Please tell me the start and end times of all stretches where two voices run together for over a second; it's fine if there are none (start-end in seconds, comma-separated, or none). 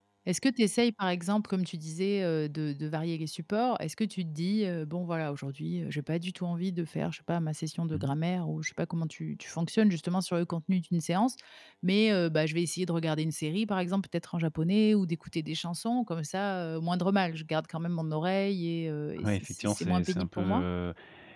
19.2-20.6